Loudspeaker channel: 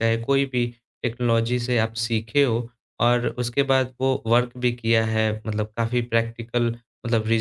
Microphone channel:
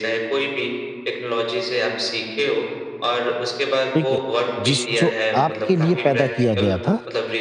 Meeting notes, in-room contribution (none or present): present